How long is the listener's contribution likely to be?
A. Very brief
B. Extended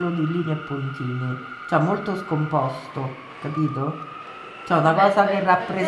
B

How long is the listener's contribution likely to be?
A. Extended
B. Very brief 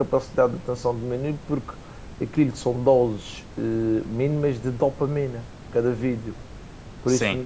B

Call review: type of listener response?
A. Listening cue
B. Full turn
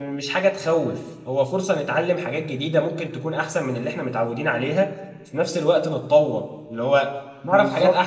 B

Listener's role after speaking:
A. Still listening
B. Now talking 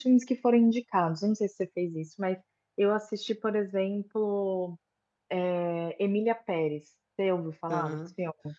B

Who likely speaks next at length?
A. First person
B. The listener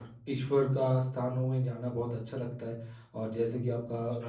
A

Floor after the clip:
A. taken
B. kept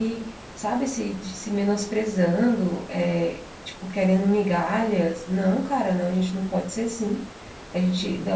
B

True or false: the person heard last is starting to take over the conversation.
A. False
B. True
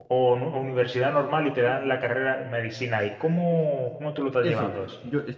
B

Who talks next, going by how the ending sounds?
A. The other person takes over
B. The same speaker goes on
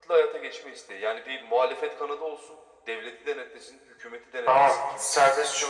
A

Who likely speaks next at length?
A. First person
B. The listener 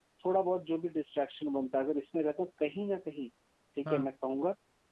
A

